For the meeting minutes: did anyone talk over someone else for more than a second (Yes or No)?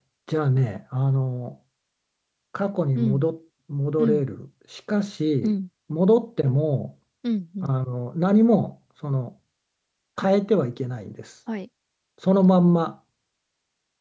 No